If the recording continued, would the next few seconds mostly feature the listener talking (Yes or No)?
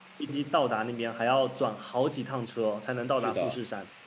Yes